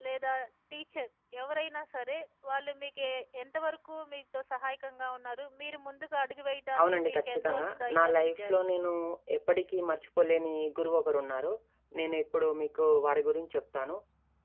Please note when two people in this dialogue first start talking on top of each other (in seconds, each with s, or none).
6.8 s